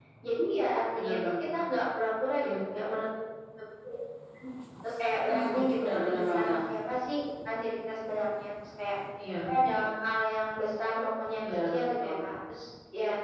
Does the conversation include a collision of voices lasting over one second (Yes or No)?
Yes